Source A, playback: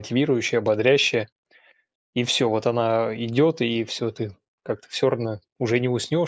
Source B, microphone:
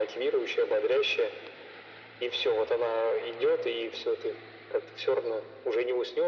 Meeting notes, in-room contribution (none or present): none